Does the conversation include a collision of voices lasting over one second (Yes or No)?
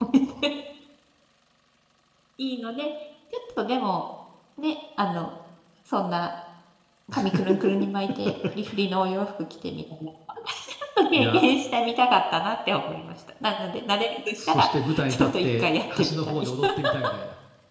Yes